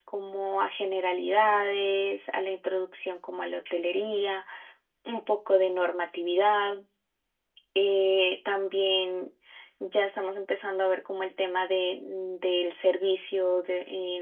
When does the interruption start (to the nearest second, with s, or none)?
none